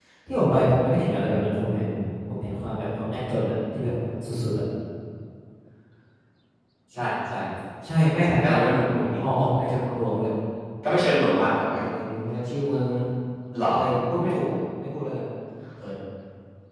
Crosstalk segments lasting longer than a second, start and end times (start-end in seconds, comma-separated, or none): none